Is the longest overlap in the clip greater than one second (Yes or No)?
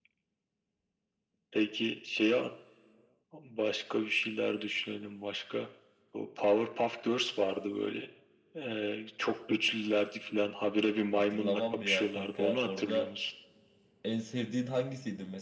Yes